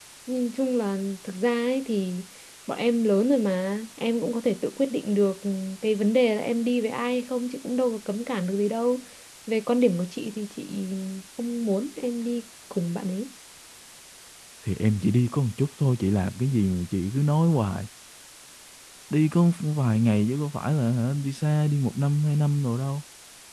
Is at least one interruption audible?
No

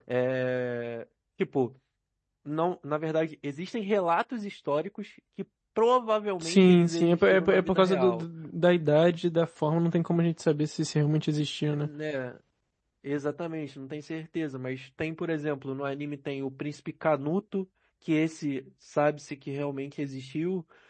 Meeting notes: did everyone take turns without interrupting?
No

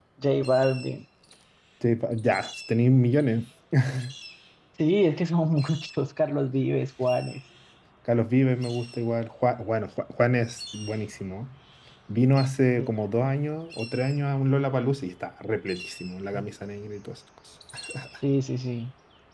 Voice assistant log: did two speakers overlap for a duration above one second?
No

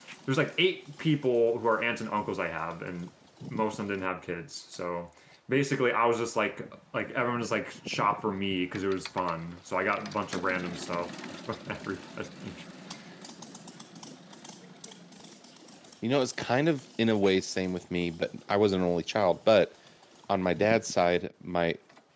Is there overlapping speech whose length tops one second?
No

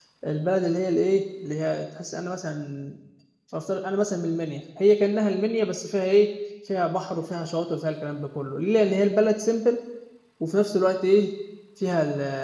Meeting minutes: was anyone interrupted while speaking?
No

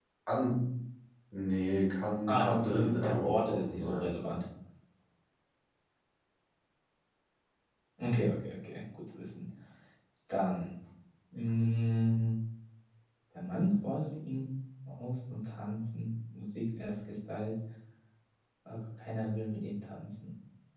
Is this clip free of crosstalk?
No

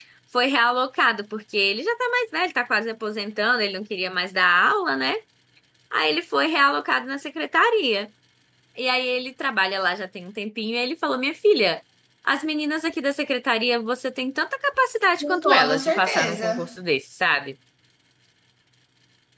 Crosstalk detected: Yes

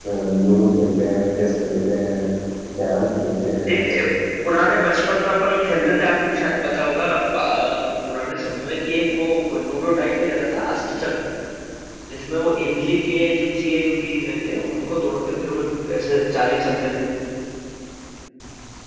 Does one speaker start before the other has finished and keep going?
No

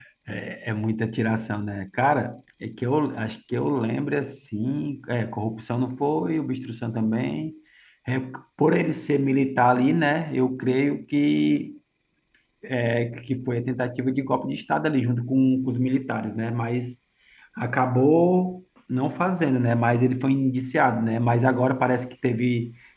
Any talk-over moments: No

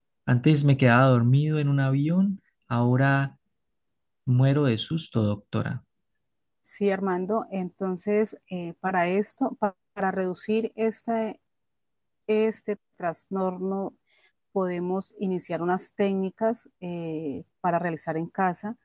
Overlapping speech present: No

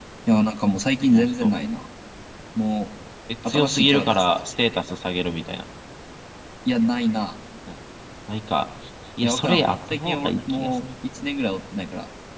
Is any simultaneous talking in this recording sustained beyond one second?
Yes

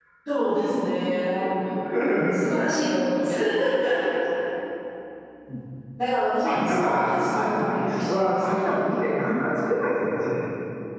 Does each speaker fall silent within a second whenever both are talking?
No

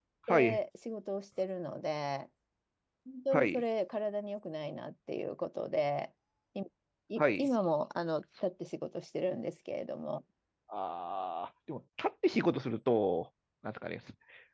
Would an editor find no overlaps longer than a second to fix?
Yes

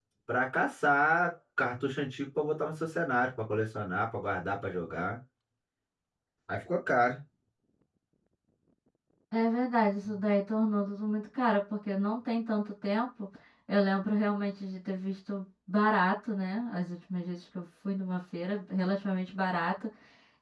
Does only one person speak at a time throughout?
Yes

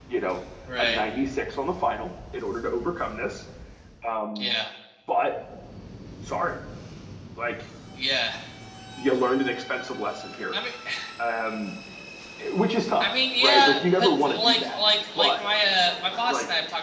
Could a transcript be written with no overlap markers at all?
No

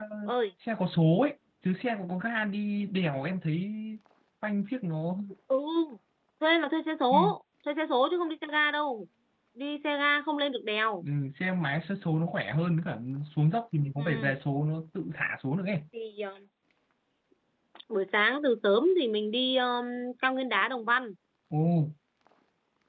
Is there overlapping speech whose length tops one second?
No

